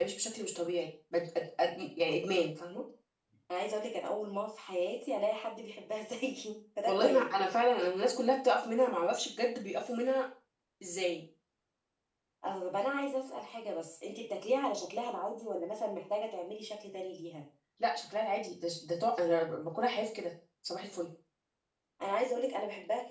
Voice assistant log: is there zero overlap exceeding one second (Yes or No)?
Yes